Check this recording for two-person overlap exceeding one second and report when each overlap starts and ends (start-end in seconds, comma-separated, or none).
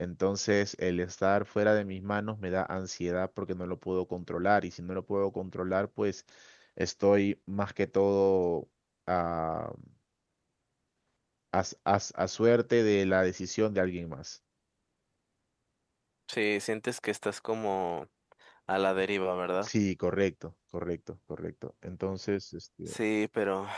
none